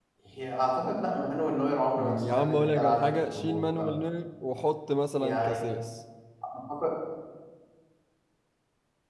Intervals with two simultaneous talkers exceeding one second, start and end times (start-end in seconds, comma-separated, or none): 2.0-3.9